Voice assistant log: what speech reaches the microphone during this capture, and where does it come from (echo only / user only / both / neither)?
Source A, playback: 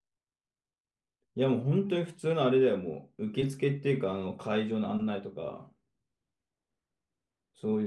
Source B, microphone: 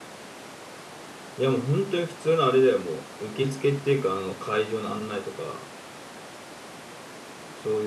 echo only